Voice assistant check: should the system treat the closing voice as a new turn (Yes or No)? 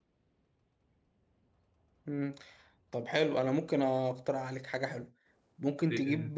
No